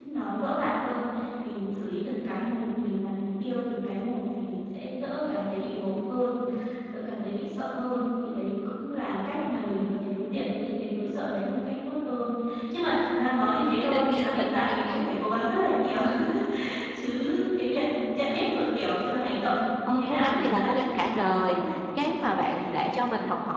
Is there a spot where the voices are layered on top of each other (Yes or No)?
Yes